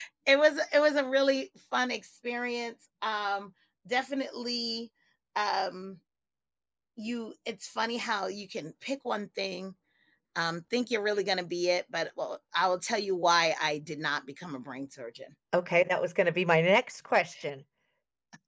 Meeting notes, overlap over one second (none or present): none